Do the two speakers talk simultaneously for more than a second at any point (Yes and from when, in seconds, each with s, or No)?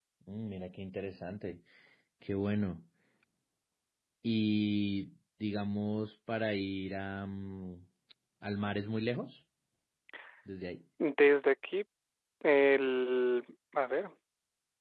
No